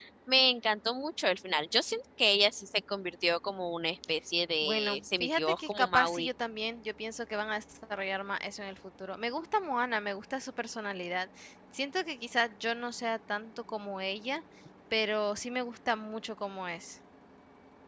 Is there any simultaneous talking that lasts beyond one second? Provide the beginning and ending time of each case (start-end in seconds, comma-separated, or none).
4.6-6.3